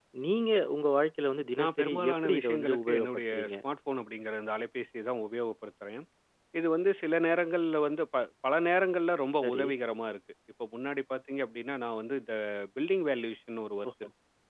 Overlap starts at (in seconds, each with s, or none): 1.6 s